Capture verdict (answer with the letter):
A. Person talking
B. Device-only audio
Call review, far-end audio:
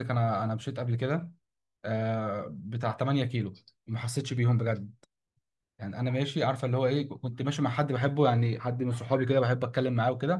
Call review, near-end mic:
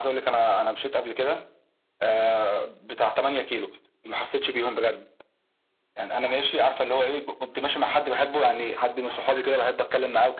B